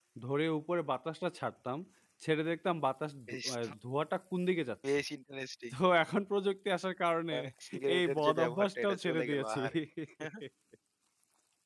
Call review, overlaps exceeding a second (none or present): present